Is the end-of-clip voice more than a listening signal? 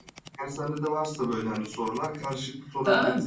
Yes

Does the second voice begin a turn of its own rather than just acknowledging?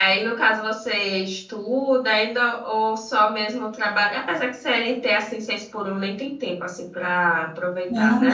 Yes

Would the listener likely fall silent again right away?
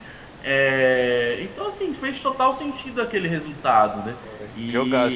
No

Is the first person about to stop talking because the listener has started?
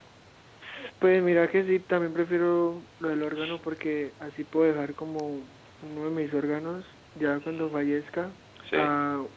No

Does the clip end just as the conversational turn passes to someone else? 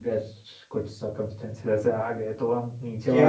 Yes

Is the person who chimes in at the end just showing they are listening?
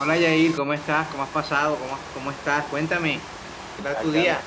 No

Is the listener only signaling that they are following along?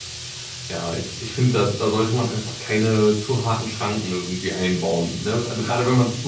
No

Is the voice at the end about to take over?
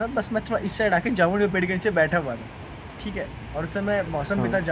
No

